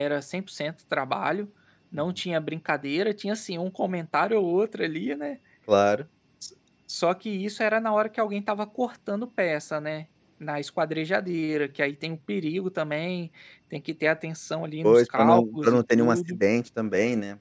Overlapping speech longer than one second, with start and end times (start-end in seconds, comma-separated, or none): 14.8-16.4